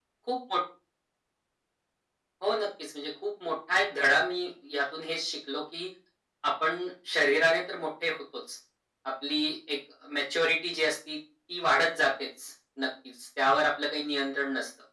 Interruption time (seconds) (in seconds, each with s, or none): none